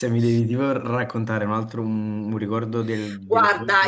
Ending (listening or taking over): taking over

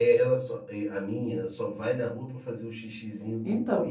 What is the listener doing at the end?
listening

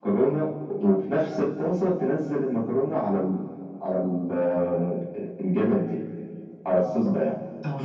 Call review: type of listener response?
taking over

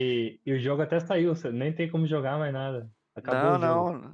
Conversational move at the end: taking over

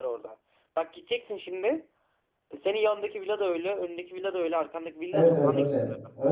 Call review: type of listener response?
taking over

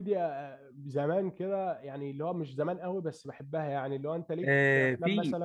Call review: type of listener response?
taking over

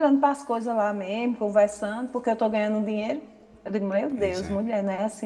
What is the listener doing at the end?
listening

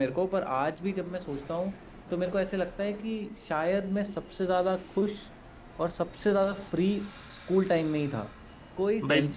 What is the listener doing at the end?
listening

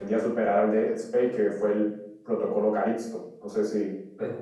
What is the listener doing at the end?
taking over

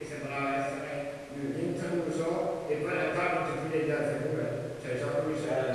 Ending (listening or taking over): listening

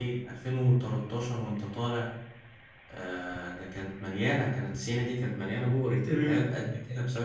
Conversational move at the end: listening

